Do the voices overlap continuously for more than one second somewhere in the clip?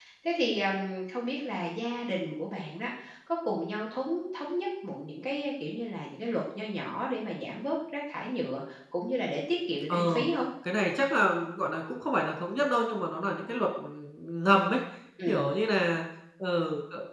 No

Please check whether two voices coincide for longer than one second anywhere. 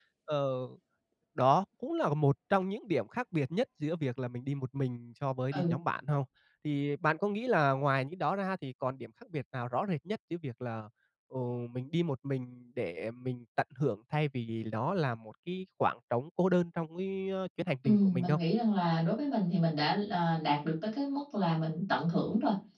No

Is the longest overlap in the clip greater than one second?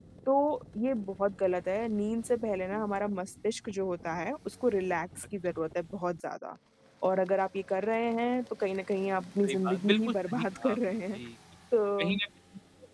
Yes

